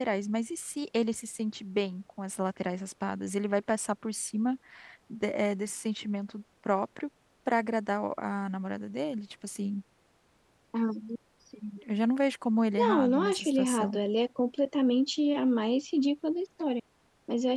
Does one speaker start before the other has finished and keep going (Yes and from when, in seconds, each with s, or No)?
Yes, from 12.8 s